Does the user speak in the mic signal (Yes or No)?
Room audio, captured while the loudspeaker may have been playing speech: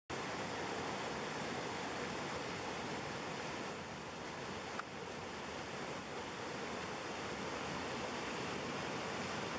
No